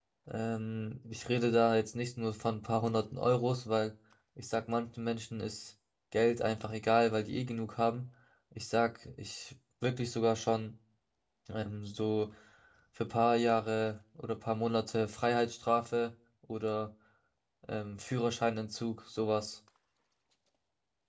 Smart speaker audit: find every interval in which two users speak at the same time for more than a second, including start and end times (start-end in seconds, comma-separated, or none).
none